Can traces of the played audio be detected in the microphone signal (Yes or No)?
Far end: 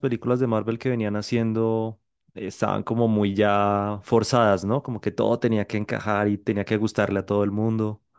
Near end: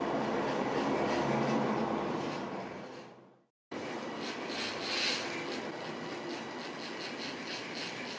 No